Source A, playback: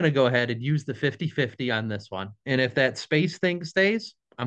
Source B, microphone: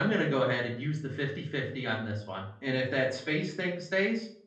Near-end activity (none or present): none